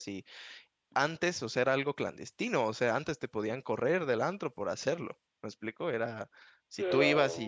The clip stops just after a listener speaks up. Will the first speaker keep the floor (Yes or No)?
Yes